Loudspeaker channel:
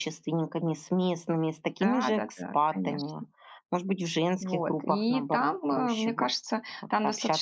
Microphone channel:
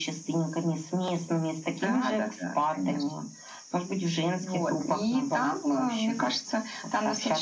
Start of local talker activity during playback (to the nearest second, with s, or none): none